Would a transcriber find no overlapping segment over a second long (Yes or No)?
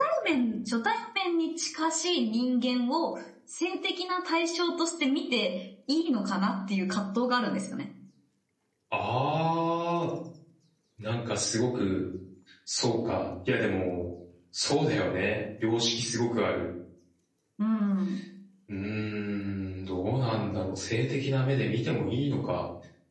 Yes